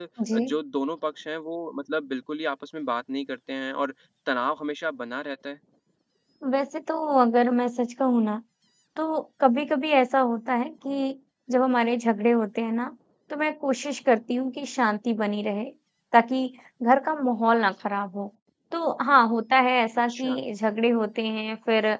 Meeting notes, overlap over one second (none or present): none